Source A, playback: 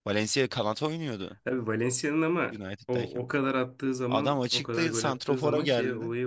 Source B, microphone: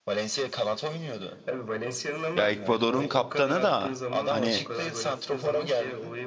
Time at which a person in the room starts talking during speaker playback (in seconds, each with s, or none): 2.4 s